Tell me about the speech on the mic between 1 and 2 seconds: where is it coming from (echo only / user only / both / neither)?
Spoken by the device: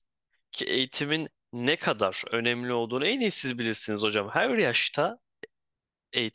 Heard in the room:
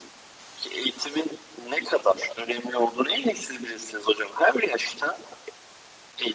echo only